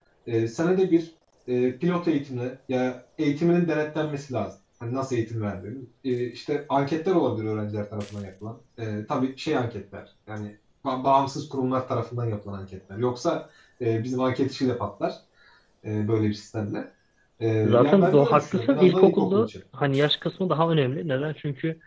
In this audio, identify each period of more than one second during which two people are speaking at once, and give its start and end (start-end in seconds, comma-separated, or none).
17.6-19.5